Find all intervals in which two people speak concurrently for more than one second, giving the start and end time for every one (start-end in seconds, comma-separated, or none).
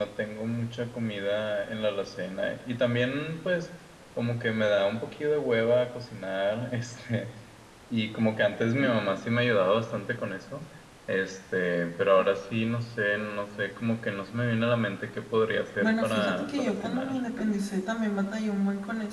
15.8-17.2